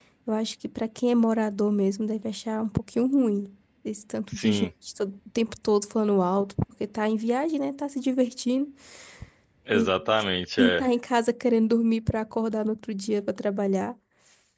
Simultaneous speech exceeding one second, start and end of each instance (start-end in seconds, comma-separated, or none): none